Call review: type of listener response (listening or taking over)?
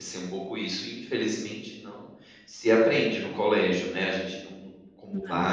listening